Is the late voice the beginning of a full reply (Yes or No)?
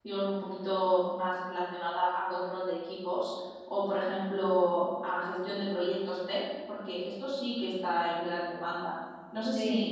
Yes